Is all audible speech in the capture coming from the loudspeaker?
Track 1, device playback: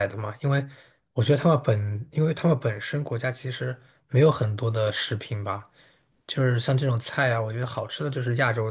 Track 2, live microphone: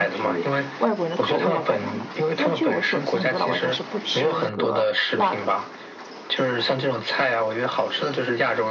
No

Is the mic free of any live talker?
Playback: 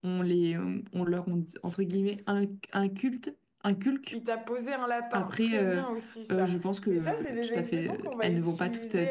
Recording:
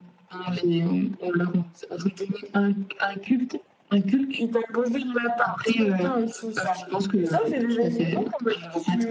Yes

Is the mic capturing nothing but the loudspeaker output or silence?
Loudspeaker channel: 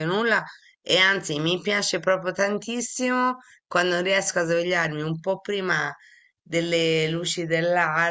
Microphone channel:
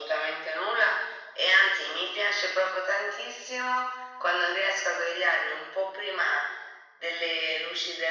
Yes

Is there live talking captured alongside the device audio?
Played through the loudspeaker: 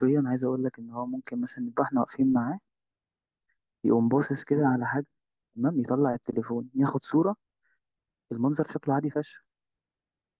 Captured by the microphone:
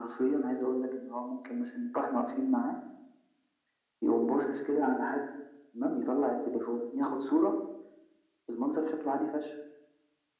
No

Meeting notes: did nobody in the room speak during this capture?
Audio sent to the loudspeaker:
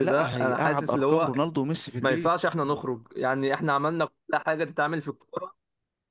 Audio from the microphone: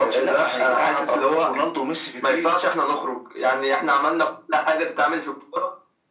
Yes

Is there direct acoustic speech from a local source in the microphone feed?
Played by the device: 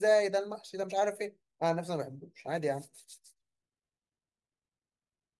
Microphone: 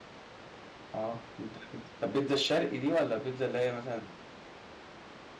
Yes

